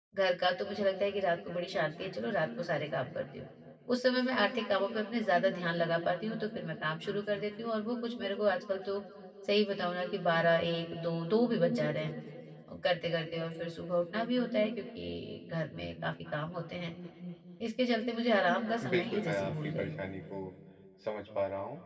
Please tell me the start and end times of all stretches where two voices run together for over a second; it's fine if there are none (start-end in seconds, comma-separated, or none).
18.8-20.0